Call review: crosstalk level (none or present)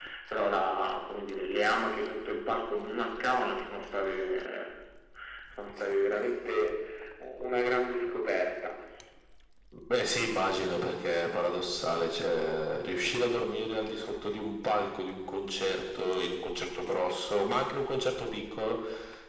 none